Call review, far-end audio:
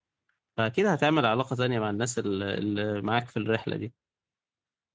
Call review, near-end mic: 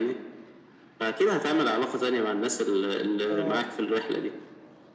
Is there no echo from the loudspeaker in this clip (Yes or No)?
No